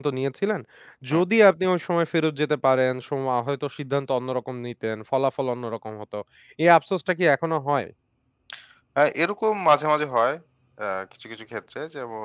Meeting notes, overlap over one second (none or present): none